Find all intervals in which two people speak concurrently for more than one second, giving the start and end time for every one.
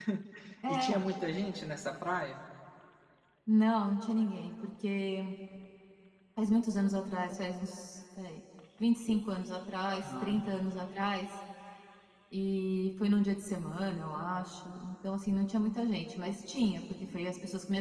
none

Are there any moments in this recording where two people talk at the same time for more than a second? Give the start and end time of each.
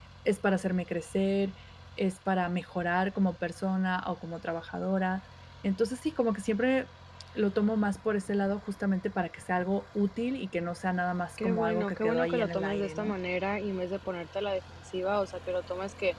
11.4-13.1

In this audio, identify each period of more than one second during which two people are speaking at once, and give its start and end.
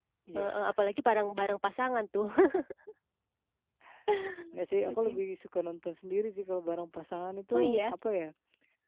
none

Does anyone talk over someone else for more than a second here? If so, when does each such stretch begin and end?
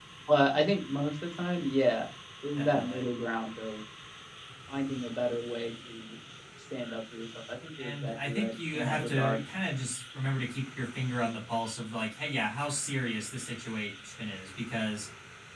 7.8-9.4

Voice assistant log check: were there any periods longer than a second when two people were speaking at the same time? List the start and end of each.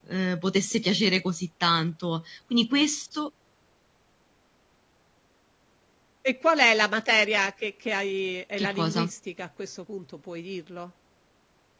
none

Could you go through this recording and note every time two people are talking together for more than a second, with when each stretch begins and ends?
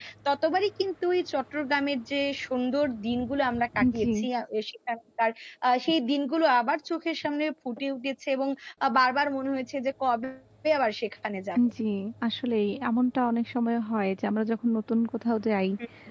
none

